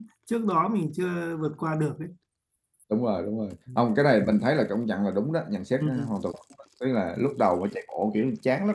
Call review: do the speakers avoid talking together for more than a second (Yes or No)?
Yes